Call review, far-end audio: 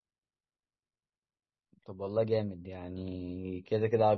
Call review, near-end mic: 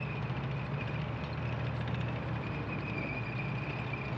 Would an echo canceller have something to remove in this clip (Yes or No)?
No